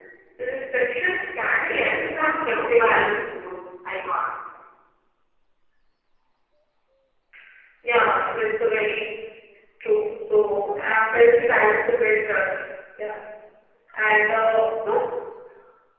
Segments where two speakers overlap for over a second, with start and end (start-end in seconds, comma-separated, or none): 1.7-3.2